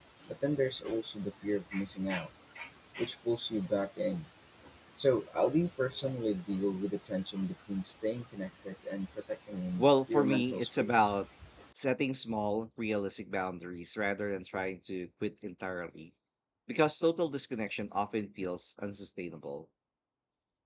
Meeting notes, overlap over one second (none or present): present